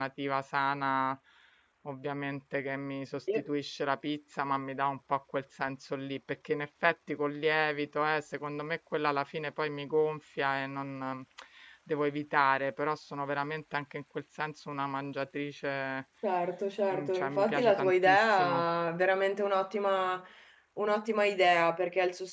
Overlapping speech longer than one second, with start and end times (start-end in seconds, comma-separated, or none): 16.9-18.6